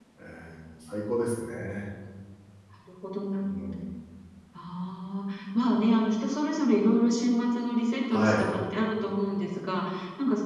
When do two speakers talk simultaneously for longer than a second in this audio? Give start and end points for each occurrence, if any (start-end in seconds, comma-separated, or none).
none